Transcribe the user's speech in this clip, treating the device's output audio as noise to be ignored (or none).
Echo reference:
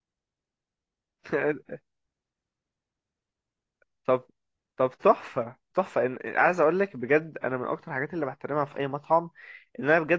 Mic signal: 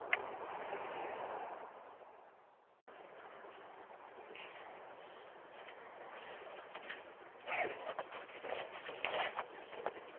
none